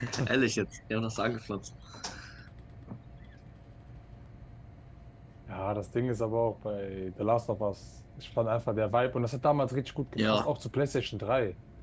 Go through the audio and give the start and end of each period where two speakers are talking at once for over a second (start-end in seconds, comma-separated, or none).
none